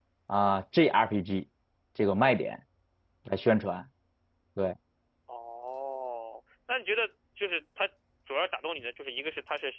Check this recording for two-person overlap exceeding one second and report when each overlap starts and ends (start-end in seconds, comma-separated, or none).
none